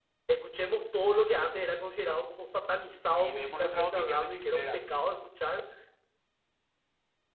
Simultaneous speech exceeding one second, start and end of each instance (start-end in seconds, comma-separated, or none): 3.1-4.9